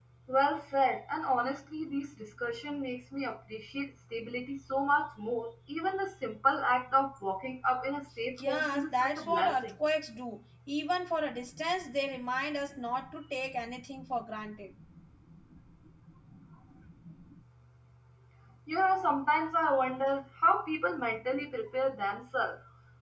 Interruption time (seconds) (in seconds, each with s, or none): 8.4 s